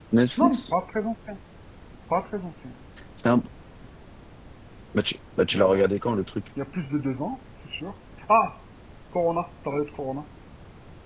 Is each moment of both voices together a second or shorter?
Yes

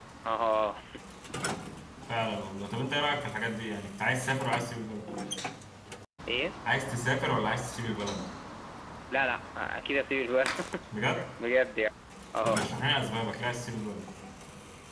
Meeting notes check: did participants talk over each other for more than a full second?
No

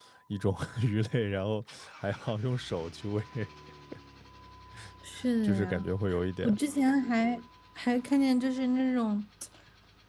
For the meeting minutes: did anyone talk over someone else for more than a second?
No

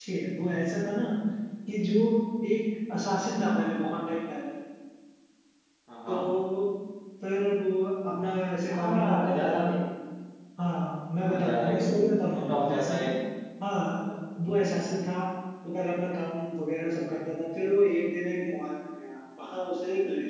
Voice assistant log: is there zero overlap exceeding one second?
No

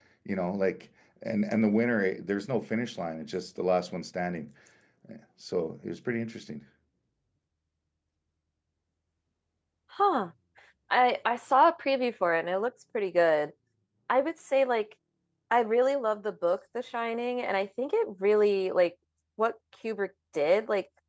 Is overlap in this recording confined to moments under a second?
Yes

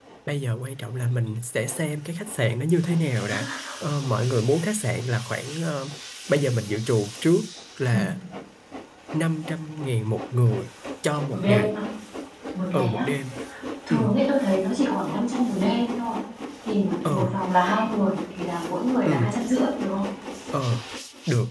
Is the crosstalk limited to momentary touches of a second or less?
Yes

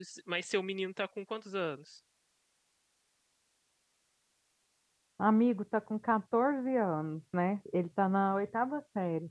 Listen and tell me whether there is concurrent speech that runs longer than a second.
No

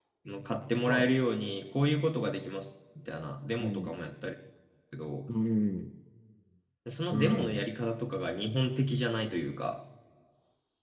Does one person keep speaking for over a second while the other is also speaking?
No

